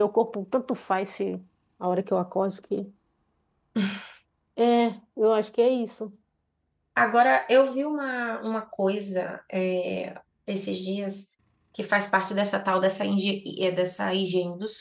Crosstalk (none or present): none